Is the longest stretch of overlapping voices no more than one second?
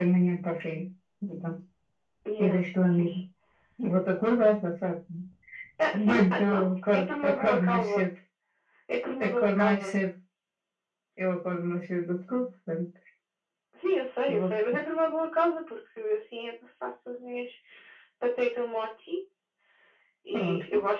No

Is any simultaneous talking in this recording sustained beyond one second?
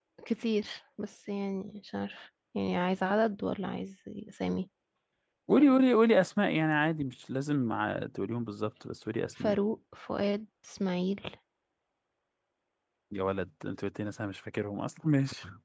No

